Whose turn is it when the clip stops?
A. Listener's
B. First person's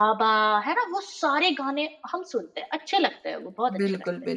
A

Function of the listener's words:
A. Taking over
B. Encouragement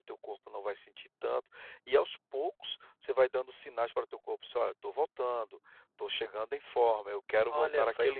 A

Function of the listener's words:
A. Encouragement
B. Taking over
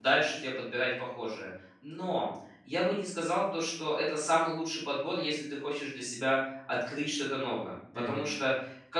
A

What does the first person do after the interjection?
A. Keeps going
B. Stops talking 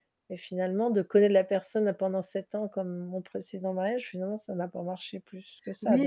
B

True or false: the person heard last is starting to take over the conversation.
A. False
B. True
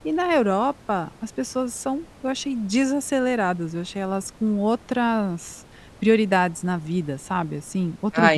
B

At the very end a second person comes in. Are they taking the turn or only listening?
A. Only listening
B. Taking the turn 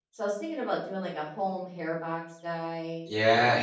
B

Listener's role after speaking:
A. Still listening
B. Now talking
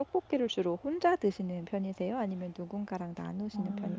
B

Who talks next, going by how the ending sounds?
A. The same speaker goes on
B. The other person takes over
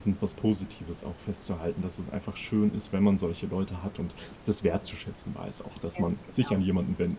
A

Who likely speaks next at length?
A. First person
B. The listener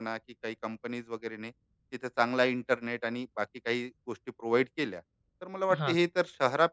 A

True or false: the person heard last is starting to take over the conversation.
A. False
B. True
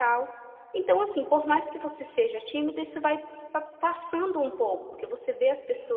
A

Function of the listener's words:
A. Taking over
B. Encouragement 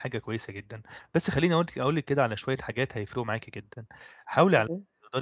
B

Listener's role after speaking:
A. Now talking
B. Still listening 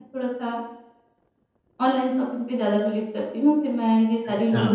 B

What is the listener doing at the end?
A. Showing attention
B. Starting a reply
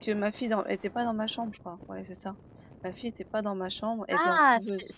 B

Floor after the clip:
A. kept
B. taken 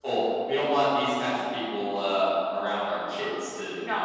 B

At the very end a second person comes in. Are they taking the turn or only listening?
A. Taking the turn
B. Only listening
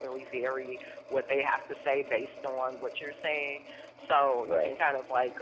B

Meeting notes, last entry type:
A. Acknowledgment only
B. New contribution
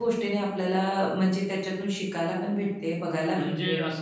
B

